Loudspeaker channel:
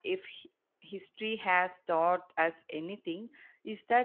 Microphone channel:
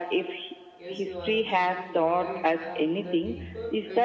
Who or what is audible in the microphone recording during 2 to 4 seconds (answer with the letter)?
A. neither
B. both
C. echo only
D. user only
B